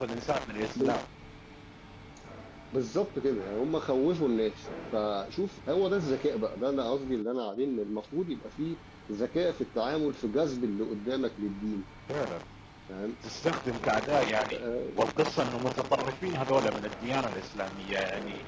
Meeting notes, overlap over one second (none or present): none